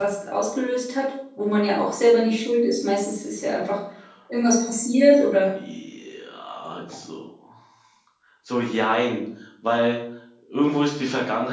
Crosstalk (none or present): none